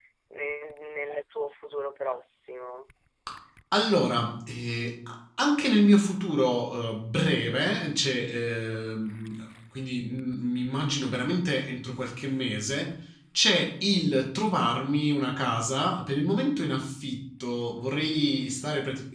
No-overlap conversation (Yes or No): Yes